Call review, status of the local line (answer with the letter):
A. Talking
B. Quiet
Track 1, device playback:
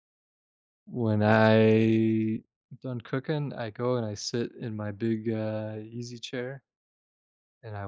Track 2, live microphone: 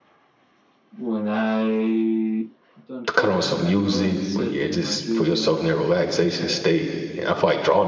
A